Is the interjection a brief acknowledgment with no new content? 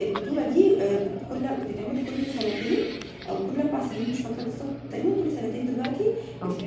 Yes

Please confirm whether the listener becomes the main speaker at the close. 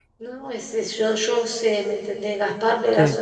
No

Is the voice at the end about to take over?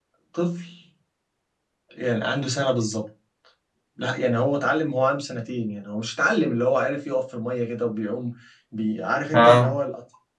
No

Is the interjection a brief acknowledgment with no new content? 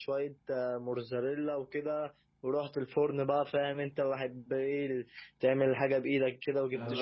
No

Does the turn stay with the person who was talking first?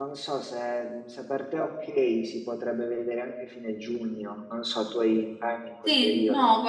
No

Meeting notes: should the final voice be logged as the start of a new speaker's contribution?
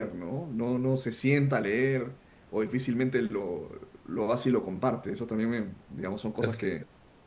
No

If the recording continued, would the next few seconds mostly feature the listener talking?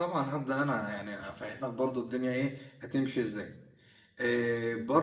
No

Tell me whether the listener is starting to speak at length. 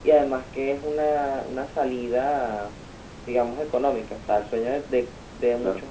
No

